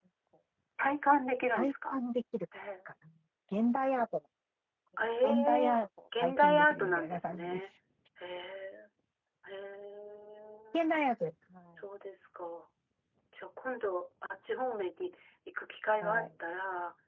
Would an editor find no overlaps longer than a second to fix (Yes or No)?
No